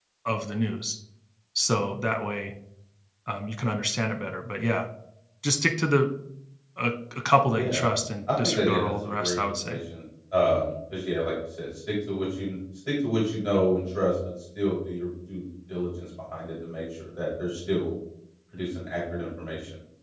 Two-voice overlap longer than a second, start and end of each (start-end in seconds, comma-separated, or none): 8.4-9.8